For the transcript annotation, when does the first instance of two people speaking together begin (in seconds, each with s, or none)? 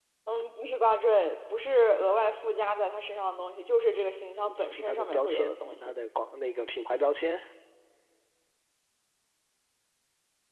4.5 s